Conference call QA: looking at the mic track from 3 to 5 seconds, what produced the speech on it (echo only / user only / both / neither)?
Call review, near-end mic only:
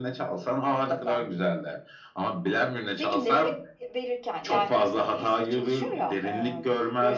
echo only